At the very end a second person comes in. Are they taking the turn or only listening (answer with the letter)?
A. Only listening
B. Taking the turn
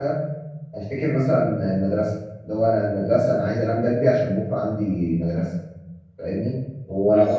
A